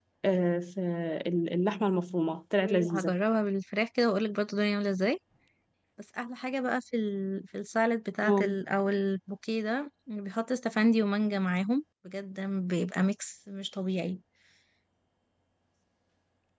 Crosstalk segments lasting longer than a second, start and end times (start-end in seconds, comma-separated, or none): none